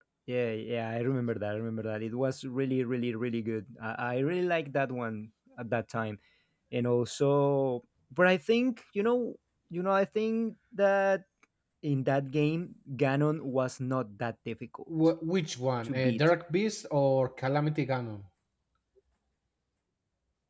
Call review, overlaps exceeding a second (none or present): none